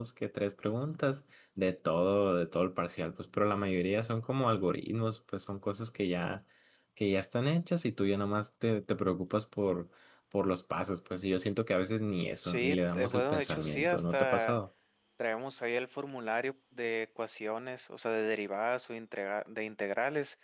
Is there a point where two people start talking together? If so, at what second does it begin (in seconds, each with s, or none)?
12.4 s